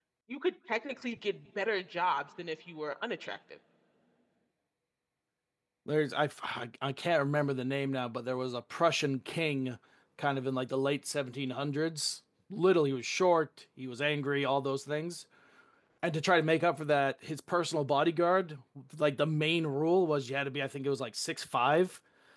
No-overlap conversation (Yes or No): Yes